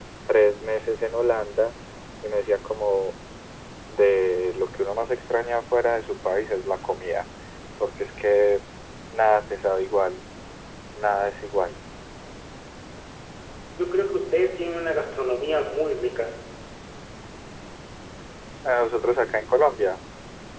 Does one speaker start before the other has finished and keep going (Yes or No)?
No